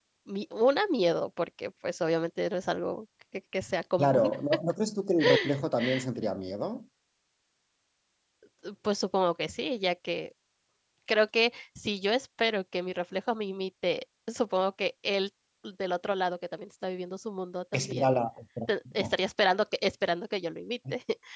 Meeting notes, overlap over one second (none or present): none